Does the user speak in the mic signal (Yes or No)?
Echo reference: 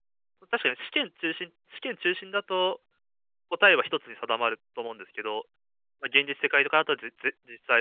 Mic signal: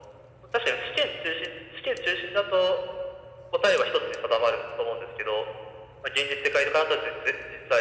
No